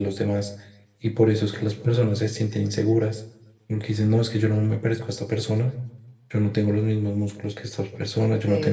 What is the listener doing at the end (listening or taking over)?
taking over